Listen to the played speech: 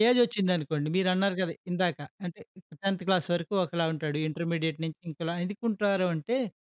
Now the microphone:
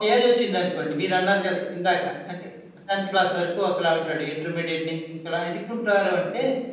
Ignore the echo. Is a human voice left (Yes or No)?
No